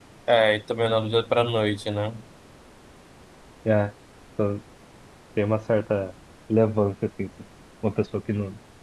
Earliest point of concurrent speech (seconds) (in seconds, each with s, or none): none